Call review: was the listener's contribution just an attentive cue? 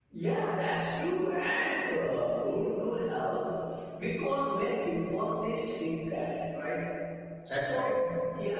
Yes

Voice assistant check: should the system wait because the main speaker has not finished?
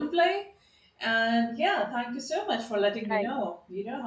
Yes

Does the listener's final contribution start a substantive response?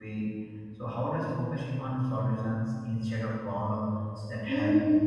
Yes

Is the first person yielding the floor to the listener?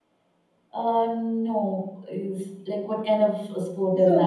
Yes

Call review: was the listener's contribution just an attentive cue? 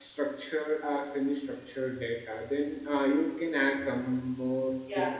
No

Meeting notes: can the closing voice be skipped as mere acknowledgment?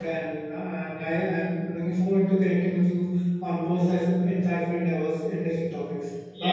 No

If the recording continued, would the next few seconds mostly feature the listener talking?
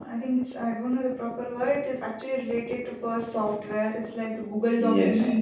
Yes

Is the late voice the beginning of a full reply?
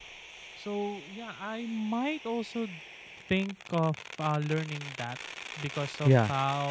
No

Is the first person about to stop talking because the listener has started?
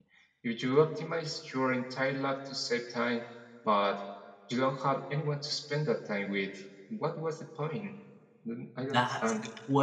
Yes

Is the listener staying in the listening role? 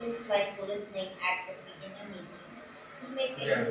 Yes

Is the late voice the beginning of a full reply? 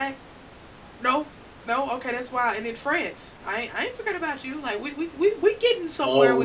Yes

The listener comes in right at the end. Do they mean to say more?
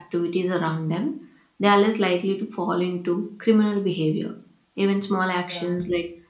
No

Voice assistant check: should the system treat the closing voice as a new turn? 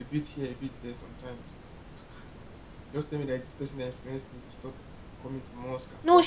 Yes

